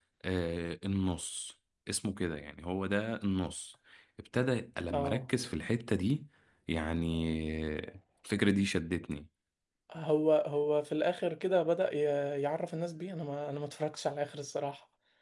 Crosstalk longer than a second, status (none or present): none